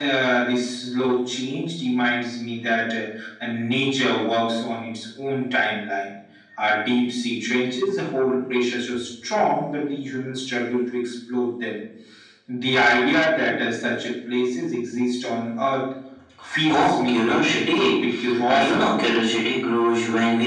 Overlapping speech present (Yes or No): Yes